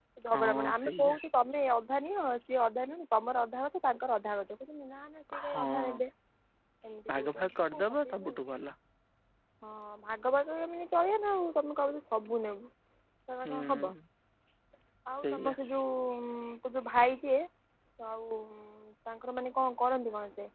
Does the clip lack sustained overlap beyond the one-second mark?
No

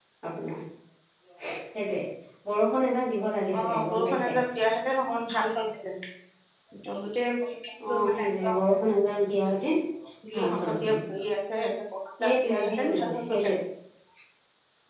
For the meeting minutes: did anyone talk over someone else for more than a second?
Yes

